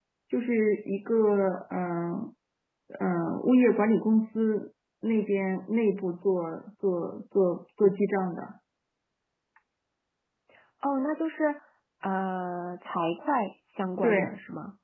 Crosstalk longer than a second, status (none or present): none